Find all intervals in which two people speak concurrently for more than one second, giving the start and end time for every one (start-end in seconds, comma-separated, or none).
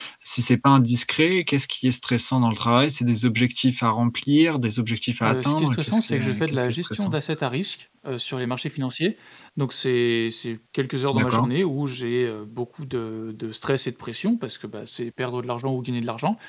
5.2-7.2